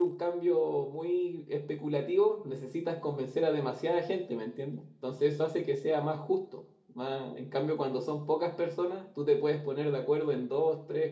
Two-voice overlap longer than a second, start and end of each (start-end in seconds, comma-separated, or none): none